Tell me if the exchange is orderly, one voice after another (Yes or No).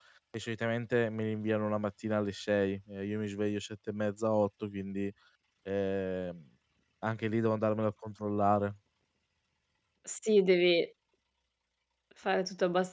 Yes